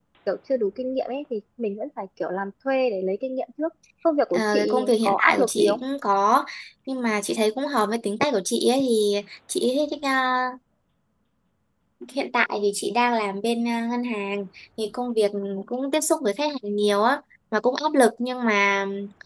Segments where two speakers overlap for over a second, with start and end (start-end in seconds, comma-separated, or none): 4.3-5.8